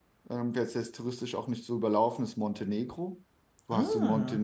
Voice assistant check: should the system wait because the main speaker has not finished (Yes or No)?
Yes